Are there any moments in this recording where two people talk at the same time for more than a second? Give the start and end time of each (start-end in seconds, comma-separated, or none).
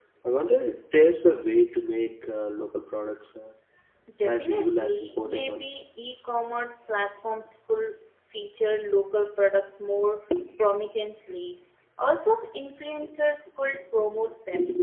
4.2-5.7